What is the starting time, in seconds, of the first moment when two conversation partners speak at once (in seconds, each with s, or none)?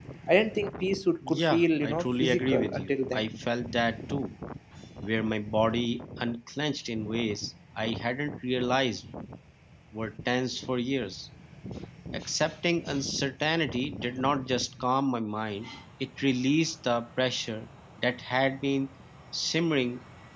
1.3 s